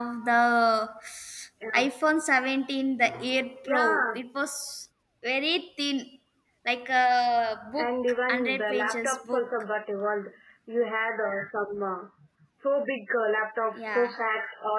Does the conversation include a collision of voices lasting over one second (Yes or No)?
Yes